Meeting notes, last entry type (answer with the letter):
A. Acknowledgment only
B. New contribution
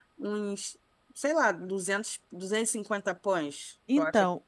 B